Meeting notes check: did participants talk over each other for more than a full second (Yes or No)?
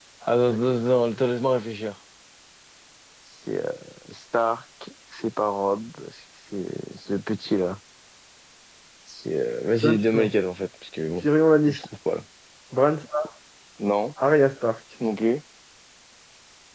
No